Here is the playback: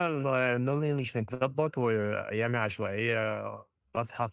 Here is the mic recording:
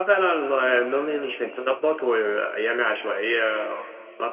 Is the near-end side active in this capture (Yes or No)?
No